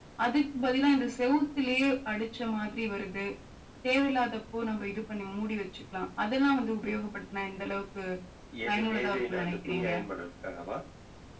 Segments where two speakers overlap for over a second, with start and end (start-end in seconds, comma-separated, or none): 8.7-9.9